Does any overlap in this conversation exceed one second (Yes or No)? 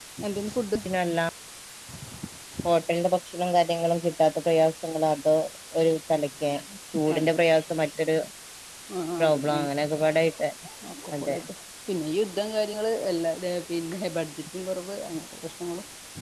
No